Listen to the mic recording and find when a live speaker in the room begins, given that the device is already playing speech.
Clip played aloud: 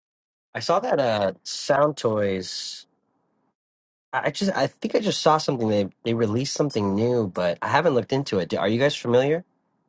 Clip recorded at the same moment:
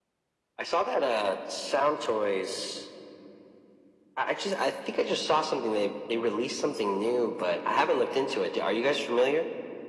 none

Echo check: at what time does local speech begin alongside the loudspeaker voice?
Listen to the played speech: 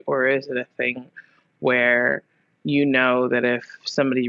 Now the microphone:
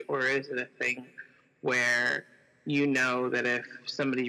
none

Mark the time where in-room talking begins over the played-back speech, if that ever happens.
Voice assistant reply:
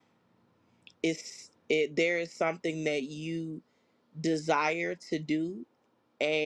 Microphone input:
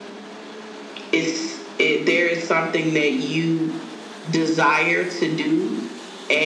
none

